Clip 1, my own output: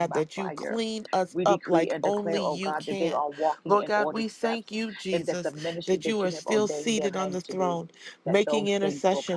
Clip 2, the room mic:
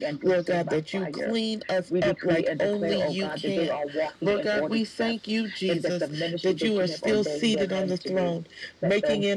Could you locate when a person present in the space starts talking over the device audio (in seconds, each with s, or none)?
none